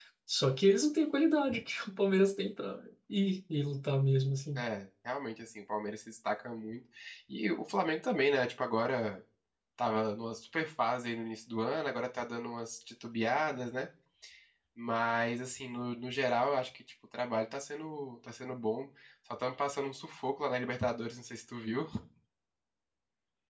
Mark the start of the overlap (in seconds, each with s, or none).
none